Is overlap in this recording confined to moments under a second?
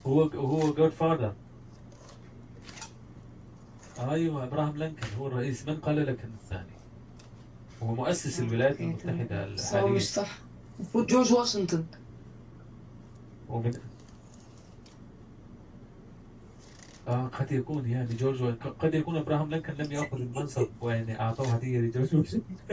No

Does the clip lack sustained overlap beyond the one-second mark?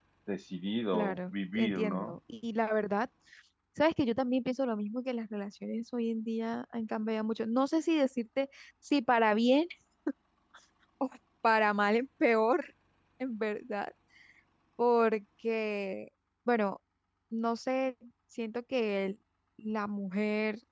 No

